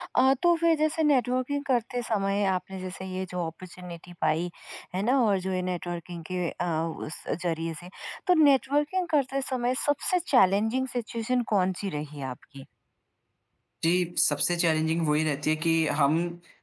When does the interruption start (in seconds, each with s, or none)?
none